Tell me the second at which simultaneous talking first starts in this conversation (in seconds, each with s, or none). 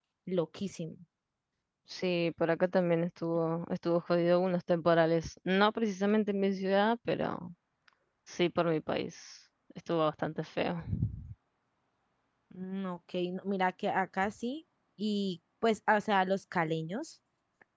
none